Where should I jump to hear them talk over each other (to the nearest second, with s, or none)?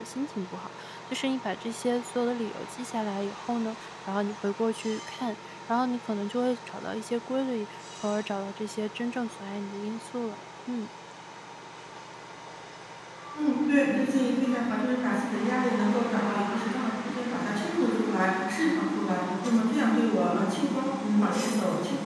none